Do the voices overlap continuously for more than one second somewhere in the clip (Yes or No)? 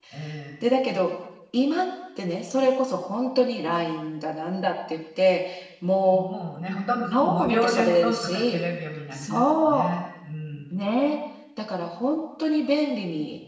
Yes